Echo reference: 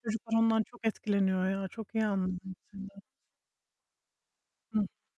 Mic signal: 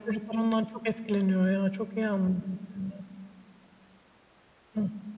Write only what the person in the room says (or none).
none